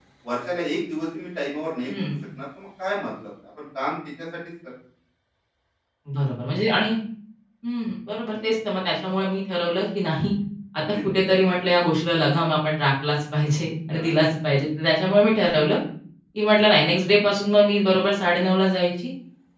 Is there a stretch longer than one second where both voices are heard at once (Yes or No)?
No